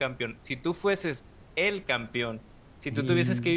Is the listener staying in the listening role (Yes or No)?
Yes